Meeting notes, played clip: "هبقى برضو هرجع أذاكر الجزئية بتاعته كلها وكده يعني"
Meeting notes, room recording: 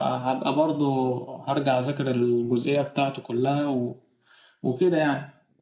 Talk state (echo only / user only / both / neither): echo only